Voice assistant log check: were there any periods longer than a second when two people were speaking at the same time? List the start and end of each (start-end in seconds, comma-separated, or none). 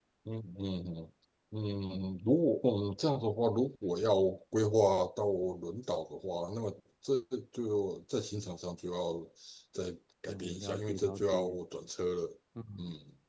10.3-11.6